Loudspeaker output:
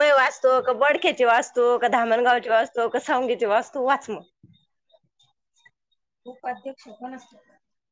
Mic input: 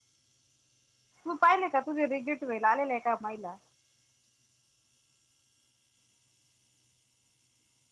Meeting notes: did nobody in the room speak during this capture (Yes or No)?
No